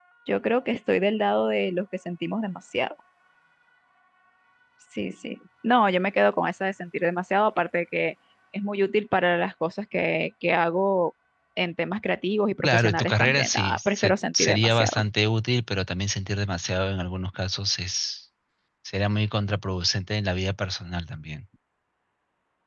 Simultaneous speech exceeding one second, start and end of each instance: 12.6-15.0

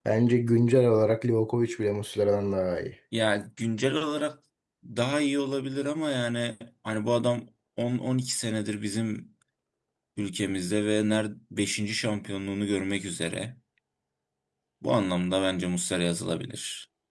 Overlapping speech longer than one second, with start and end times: none

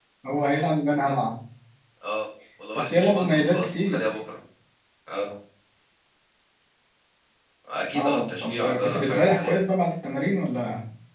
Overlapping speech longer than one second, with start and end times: 2.8-4.0, 8.0-9.6

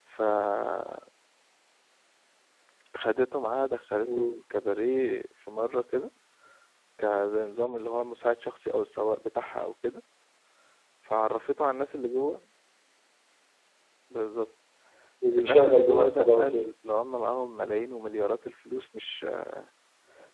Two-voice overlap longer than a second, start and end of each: 15.4-16.7

